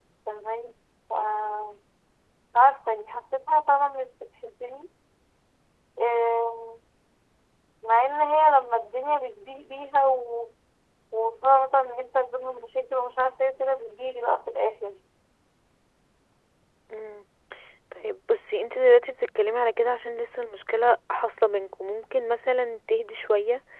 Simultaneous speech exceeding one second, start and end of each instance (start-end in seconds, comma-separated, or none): none